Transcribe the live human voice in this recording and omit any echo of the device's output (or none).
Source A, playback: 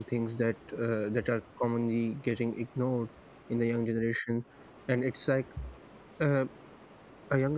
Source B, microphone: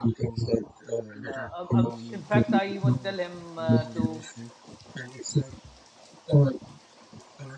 no, um, um, in fact, I even tell him uh, to